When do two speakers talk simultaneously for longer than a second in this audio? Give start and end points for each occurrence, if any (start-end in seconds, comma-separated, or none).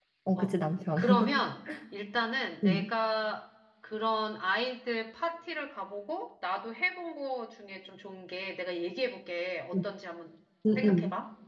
none